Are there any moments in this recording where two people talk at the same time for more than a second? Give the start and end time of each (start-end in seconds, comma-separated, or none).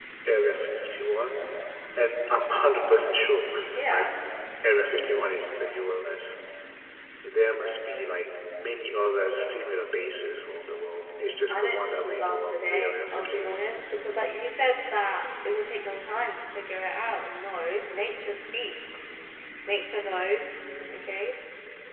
11.5-13.6